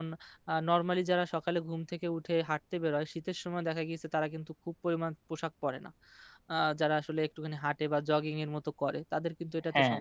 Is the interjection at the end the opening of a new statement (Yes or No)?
No